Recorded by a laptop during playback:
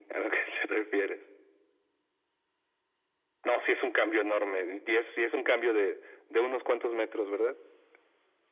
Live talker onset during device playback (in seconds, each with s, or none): none